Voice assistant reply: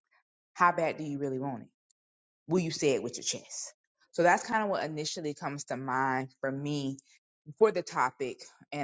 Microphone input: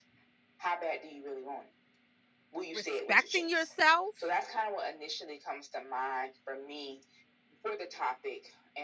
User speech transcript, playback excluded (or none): respecting yourself,